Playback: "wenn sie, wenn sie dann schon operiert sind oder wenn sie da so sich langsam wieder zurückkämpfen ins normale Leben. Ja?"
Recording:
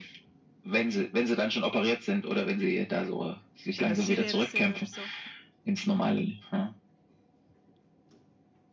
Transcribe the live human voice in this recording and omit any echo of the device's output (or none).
wenn das Skilehrer sind oder so.